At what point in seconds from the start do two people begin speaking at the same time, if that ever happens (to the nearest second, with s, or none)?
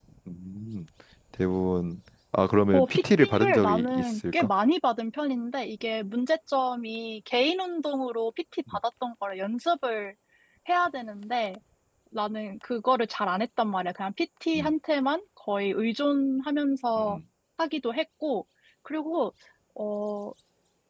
3 s